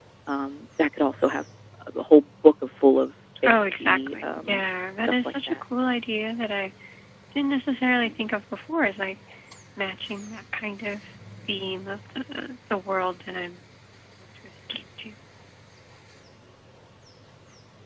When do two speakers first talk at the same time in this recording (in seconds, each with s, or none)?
3.4 s